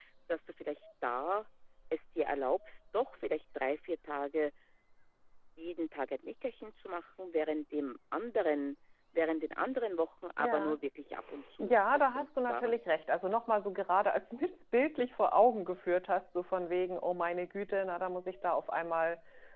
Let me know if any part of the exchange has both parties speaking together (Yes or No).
Yes